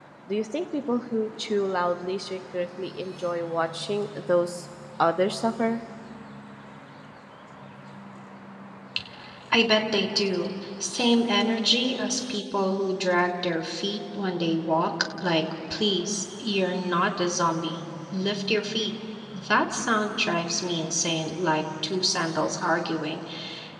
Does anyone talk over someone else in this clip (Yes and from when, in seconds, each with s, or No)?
No